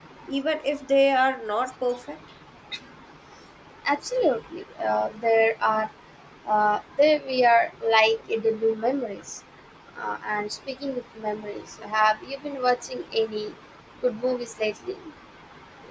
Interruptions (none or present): none